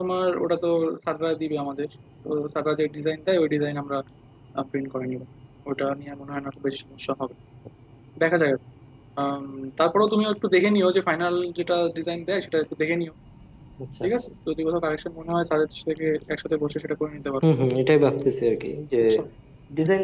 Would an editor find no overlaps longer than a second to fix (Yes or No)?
Yes